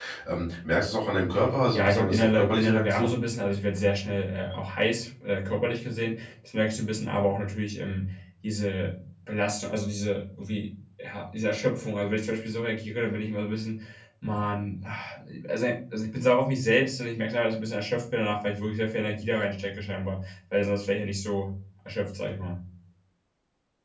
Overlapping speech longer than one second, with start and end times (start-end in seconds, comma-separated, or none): 1.7-3.1